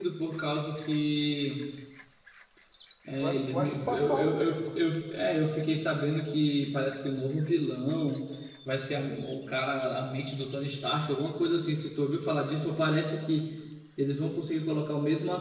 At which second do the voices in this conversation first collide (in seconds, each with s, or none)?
3.2 s